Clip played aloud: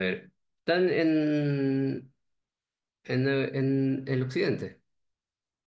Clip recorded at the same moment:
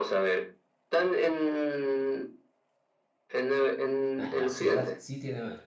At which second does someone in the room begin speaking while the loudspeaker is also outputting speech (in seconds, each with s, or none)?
4.2 s